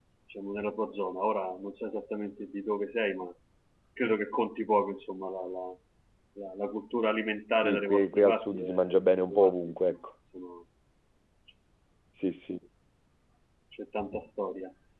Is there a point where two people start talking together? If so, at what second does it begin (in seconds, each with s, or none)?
7.6 s